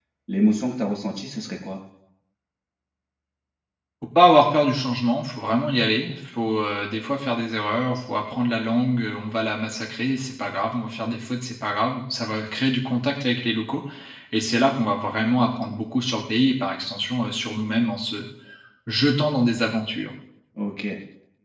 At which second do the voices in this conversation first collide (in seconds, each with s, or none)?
none